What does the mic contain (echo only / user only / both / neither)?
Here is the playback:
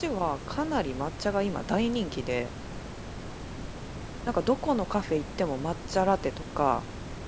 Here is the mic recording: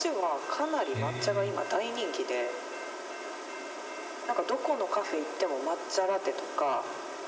both